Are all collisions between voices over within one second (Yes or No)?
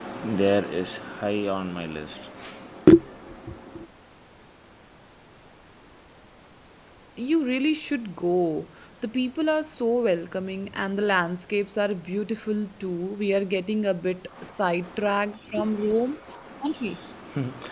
Yes